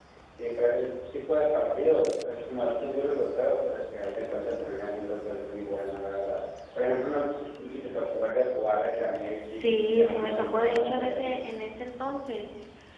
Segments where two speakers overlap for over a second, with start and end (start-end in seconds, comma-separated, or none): 9.6-11.4